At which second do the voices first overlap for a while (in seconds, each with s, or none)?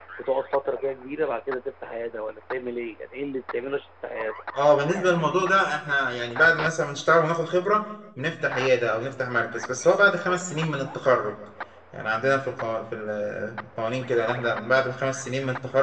none